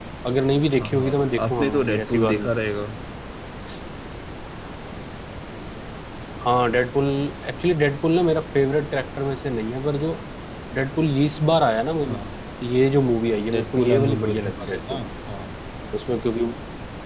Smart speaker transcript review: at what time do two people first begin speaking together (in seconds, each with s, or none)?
0.8 s